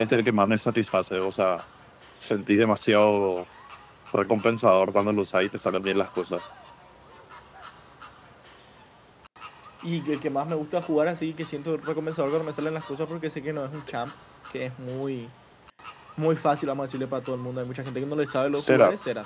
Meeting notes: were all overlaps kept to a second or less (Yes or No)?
Yes